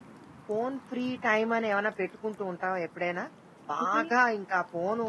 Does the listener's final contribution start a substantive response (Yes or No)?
No